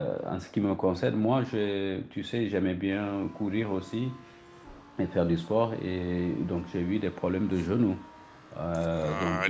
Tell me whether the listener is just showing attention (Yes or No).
No